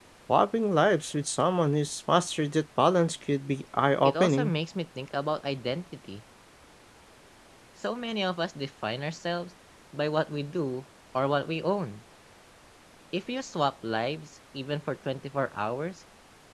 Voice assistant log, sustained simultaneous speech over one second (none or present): none